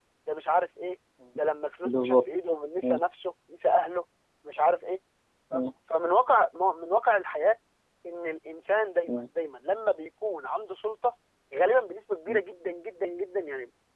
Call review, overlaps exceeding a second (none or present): none